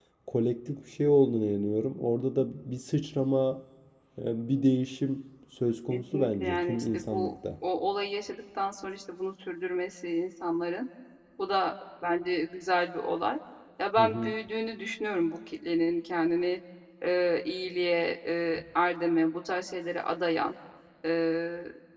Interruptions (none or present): present